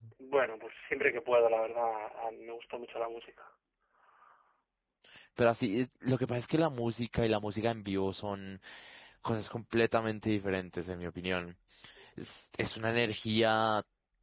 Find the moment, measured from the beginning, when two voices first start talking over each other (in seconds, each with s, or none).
none